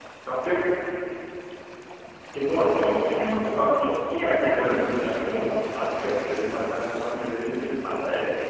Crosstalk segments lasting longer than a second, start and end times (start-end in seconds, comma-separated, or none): 4.1-6.0